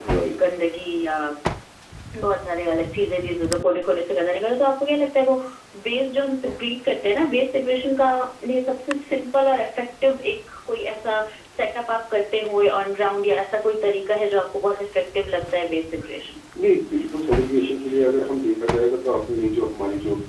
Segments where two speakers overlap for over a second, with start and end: none

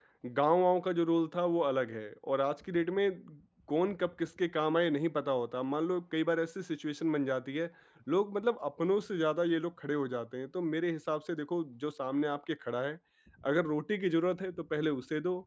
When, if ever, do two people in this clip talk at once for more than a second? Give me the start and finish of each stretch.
none

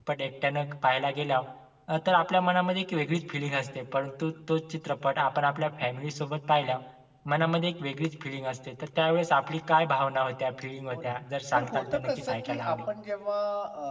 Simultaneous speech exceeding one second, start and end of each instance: 11.5-12.8

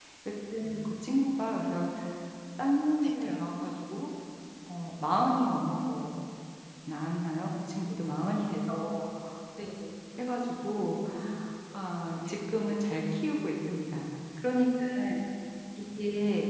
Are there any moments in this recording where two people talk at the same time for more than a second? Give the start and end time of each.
none

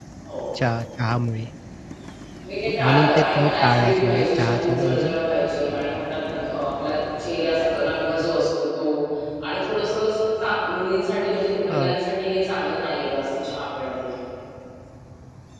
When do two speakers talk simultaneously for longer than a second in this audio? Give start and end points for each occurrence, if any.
2.8-5.1

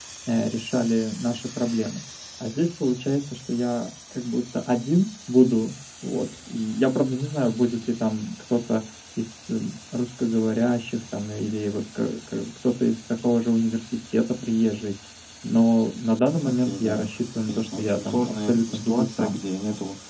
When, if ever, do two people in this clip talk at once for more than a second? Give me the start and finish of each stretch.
16.4-19.4

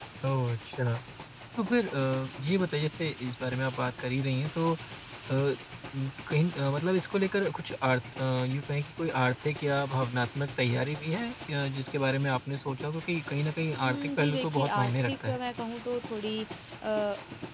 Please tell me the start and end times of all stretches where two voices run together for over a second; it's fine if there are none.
13.8-15.4

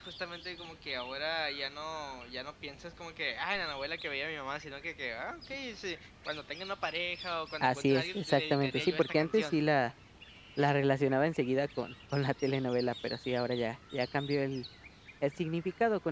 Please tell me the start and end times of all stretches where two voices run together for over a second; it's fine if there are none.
7.6-9.6

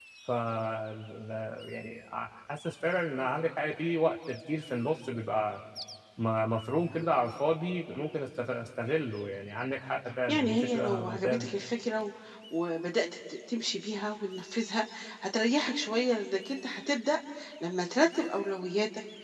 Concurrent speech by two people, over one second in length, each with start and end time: 10.3-11.5

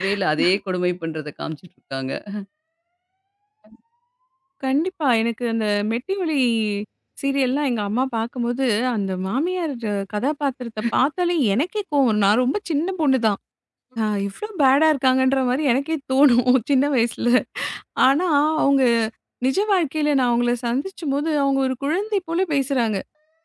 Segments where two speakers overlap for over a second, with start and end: none

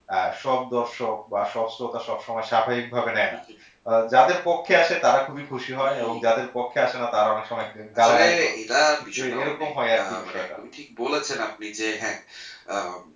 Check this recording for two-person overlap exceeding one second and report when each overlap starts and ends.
9.2-10.4

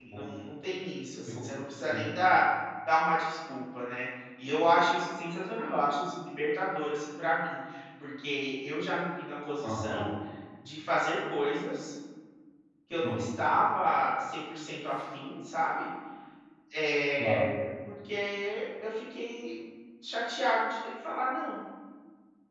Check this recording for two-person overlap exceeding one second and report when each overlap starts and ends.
none

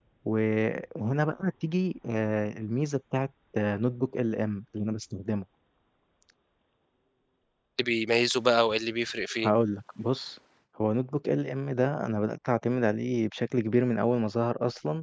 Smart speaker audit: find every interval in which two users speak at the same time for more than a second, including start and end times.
none

